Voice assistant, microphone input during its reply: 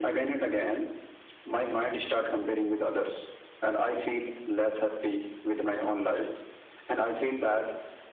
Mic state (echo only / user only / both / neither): echo only